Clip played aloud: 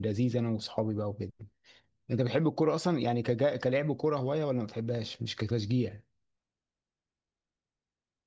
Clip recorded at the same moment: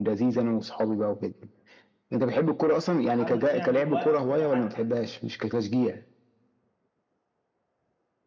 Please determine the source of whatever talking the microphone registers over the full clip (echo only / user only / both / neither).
both